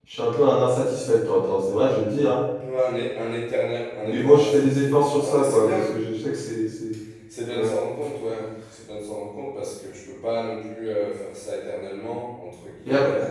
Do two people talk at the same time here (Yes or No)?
Yes